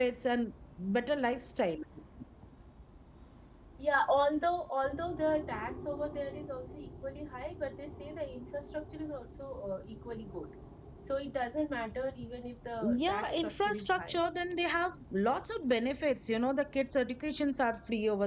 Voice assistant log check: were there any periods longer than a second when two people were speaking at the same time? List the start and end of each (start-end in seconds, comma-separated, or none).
12.8-14.2